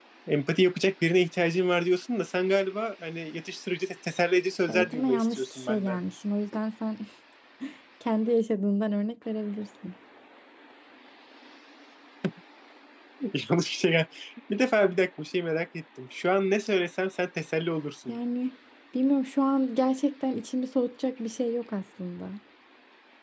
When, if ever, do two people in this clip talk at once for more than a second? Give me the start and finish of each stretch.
4.7-6.0

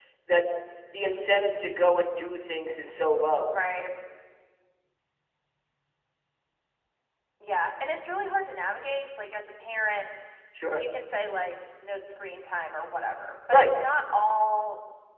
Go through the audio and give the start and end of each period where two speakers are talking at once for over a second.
none

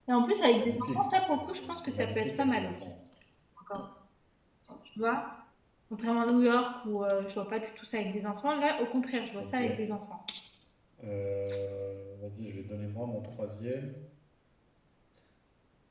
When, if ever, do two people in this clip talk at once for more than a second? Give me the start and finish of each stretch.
0.6-2.9

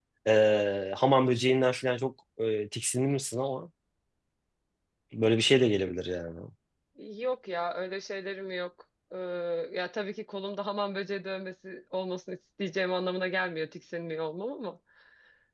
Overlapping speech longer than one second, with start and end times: none

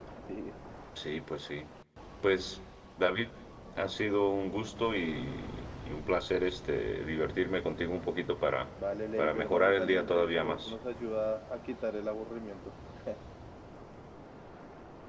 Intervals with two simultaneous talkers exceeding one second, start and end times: 9.2-10.7

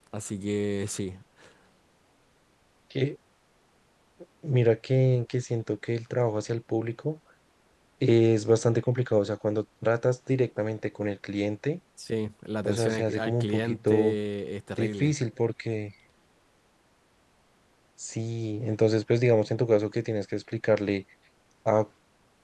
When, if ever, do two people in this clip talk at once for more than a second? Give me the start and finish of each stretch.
12.7-14.2

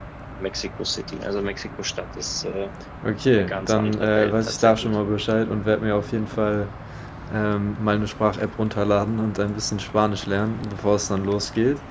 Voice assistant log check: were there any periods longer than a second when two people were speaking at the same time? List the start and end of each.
3.4-5.0

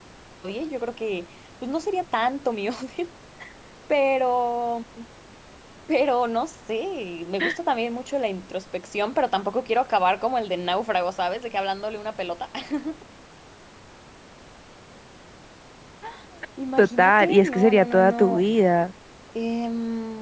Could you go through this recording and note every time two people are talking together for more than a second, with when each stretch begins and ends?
16.8-18.4

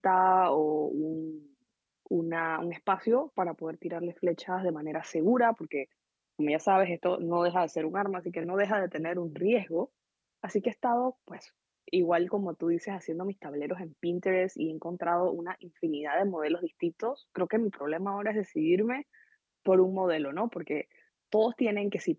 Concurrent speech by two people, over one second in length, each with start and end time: none

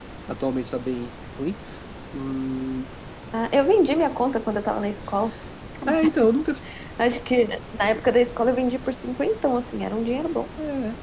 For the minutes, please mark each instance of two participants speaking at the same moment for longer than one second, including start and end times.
none

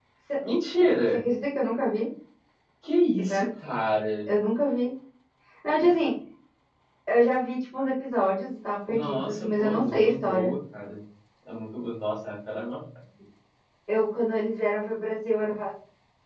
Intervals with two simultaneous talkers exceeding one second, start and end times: 8.9-10.5

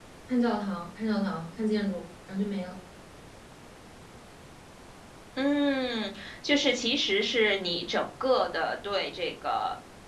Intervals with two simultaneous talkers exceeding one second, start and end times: none

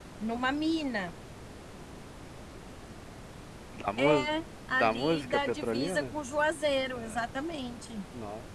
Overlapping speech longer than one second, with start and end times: 4.7-6.1

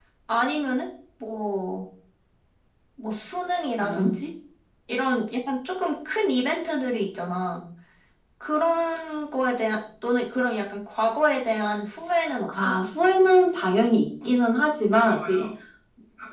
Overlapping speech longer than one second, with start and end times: none

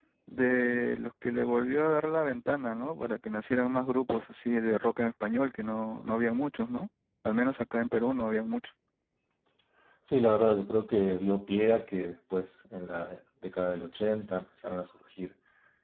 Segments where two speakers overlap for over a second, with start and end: none

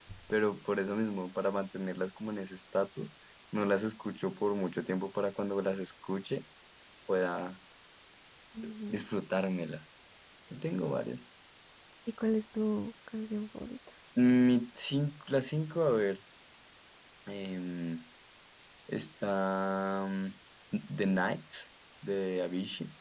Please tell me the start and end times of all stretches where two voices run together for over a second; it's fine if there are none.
none

